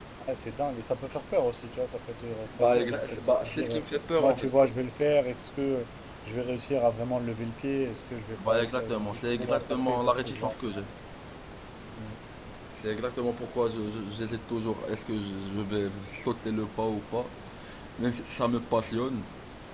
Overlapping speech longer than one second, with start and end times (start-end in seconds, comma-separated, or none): 2.6-3.8, 8.5-10.8